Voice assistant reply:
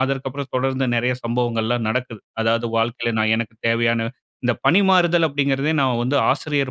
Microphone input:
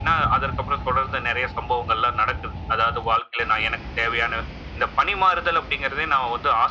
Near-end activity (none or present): none